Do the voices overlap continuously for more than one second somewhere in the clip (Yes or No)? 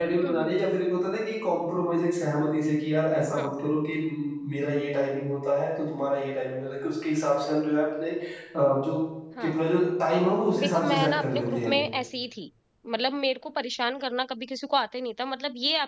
Yes